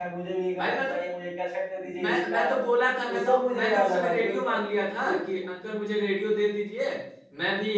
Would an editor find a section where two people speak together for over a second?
Yes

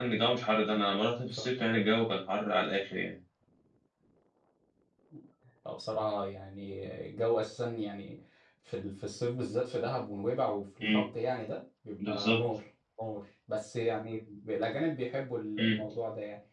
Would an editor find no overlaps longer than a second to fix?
Yes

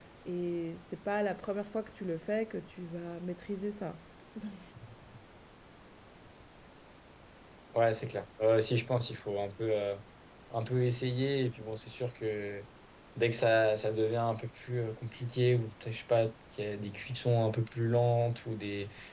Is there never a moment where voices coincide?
Yes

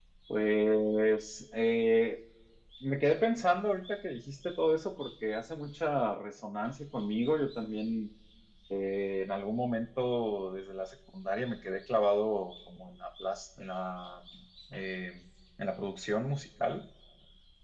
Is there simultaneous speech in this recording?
No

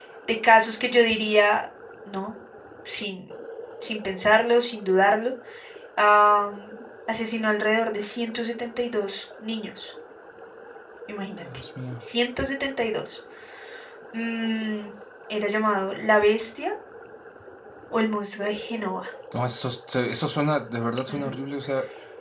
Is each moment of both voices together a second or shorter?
Yes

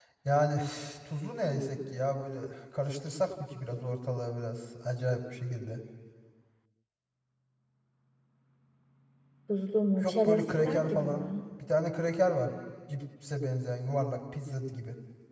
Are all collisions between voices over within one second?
No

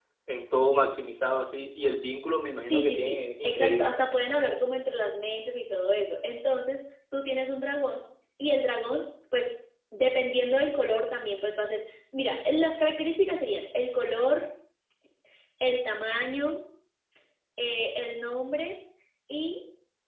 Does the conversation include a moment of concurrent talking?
Yes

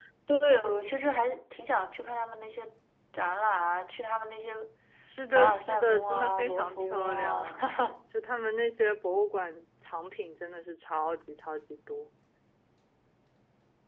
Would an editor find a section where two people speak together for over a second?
Yes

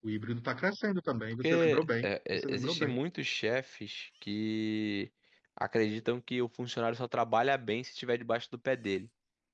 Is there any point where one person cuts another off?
Yes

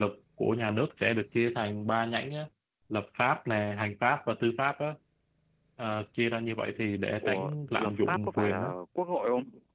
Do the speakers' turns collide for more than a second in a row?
Yes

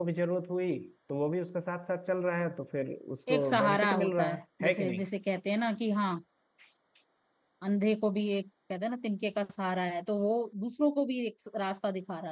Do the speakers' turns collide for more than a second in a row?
Yes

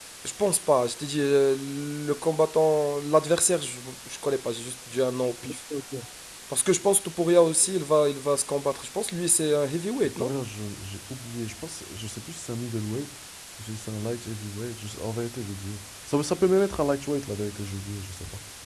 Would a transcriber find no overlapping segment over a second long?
Yes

